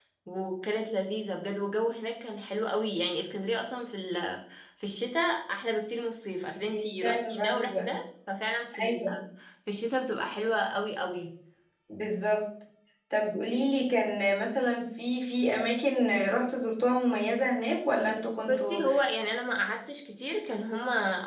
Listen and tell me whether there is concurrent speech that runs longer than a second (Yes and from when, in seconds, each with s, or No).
Yes, from 6.7 s